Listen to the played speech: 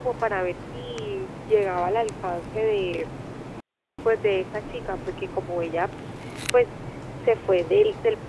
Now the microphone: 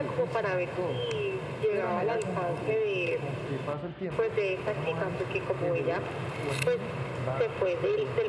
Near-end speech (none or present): present